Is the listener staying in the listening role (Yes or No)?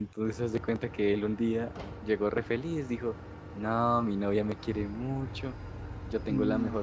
Yes